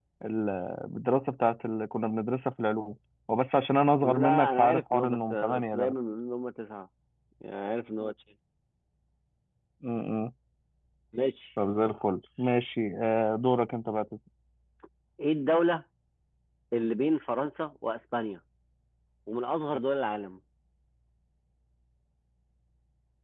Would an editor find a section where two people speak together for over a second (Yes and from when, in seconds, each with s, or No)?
Yes, from 4.0 s